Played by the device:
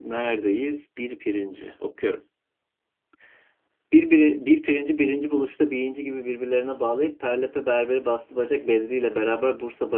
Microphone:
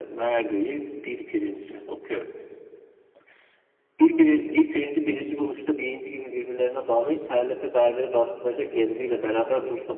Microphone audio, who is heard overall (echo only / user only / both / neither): echo only